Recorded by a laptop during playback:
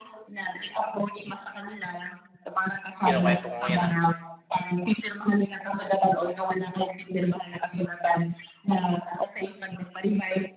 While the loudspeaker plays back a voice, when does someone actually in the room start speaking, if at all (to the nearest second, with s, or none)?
3 s